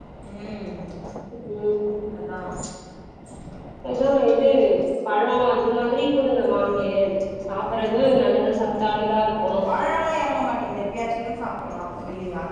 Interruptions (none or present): none